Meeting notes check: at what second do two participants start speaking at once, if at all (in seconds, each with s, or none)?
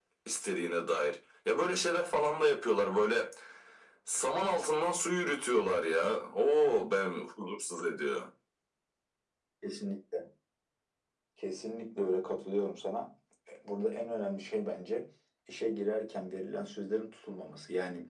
none